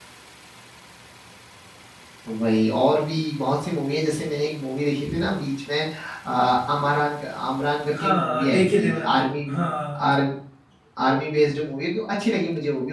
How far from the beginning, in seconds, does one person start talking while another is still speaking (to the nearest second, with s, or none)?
8 s